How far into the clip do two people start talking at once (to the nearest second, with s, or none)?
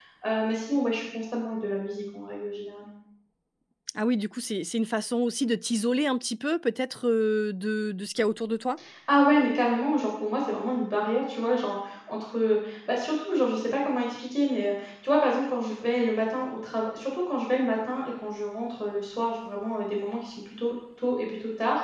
none